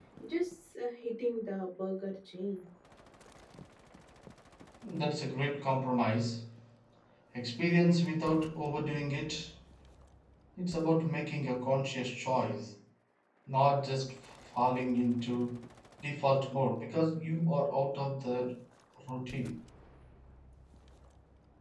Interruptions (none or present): none